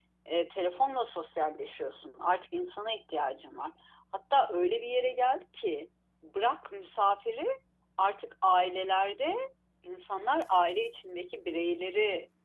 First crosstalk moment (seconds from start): none

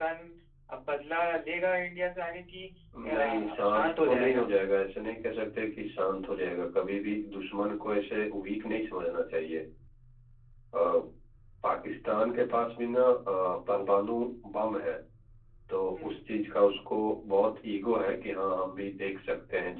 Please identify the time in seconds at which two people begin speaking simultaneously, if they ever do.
3.0 s

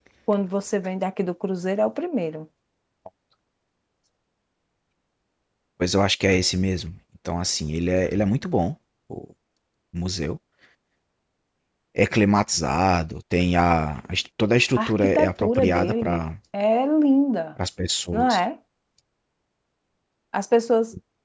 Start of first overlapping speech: 14.8 s

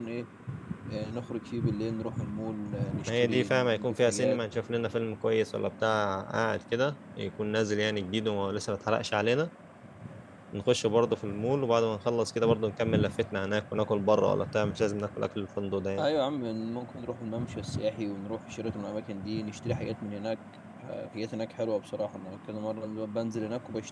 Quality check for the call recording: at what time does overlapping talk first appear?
3.0 s

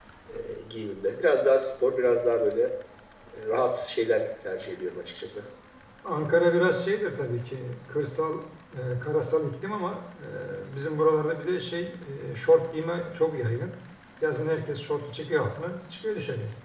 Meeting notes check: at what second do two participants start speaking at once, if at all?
none

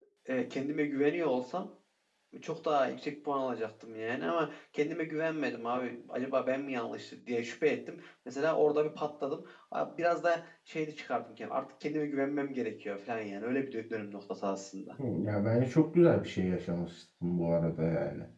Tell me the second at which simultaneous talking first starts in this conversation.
none

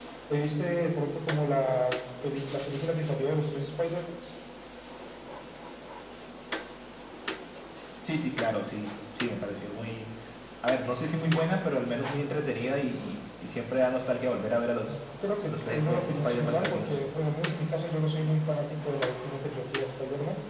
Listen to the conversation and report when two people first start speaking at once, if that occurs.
15.5 s

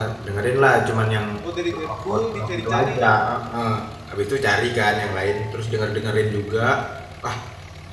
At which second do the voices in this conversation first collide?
1.6 s

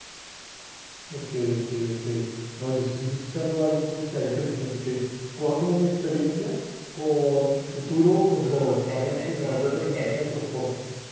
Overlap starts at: 8.4 s

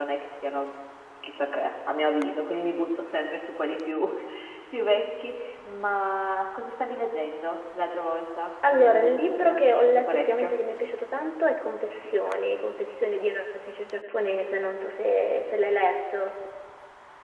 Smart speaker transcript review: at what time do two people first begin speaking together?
8.6 s

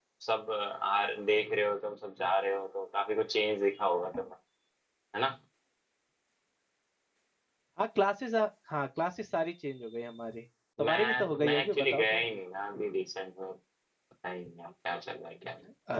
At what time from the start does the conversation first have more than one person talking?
10.8 s

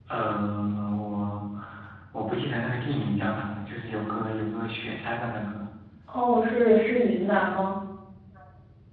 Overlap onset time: none

